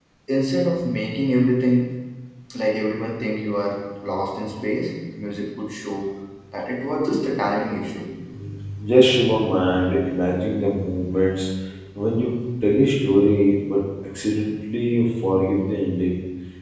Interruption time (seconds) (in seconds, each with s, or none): none